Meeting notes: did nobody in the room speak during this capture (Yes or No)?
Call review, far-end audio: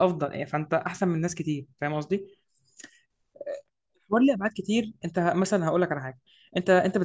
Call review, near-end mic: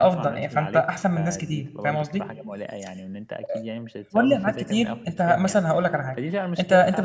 No